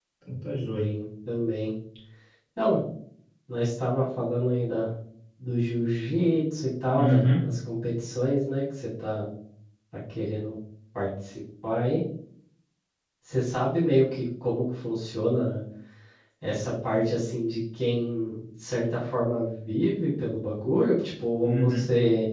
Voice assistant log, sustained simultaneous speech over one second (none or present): none